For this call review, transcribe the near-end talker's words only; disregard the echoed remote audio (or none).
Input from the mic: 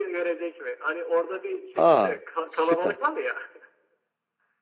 Aa süper.